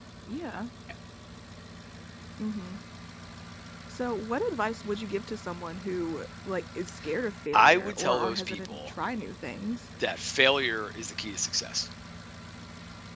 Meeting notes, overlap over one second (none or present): present